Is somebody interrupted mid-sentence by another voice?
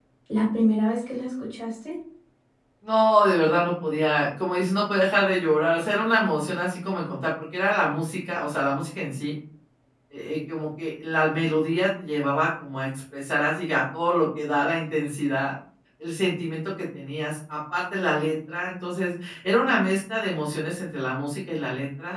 No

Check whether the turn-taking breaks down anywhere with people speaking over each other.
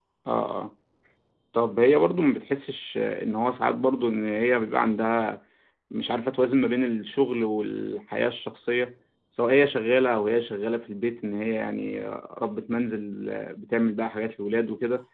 No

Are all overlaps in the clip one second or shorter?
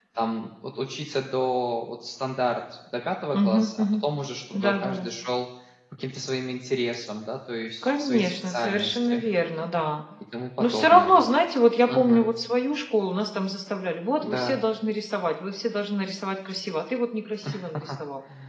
No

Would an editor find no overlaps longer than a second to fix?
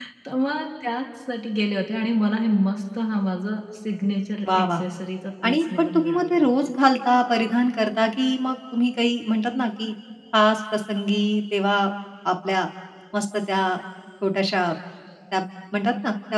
No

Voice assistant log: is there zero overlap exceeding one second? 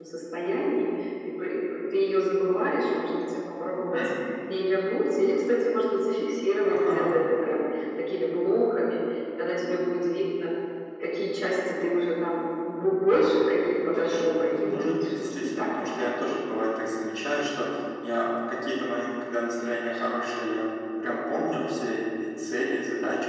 No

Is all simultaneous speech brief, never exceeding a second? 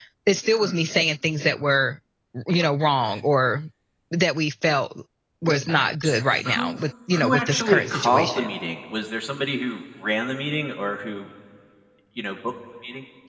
No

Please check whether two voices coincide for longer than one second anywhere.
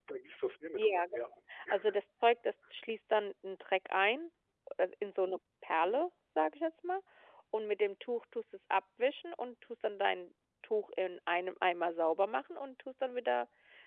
No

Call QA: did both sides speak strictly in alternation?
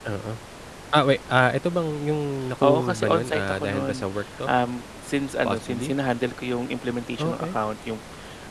No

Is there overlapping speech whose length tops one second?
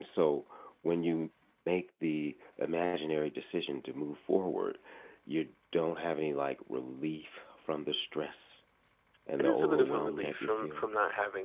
Yes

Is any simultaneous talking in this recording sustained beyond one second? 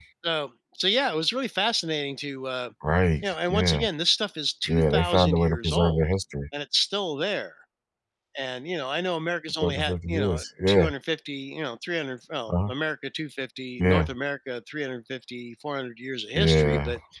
Yes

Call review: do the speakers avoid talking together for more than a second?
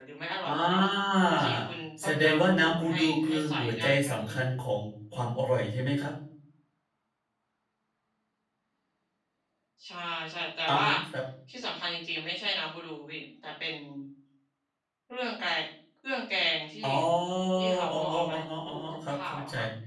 No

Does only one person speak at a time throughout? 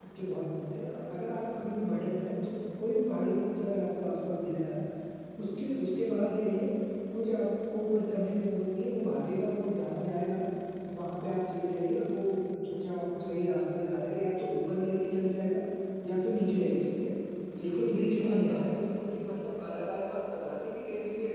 No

